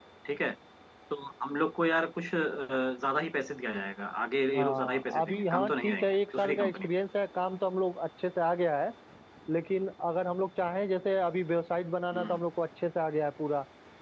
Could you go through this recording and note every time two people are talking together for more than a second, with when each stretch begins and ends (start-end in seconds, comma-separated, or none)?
4.5-6.9